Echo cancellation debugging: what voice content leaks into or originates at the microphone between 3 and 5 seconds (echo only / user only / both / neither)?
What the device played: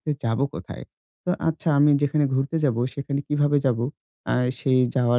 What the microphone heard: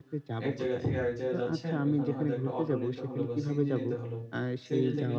both